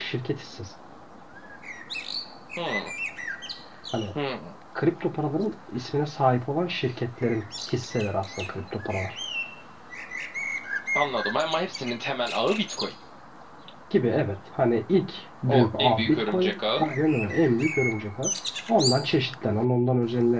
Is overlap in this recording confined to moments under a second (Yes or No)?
No